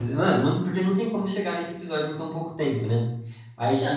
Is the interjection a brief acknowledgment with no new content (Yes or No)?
No